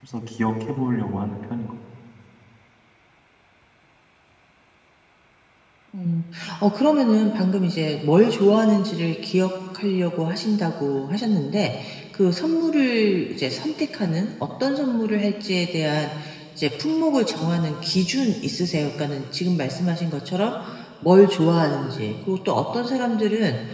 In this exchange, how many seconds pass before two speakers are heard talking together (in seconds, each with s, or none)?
none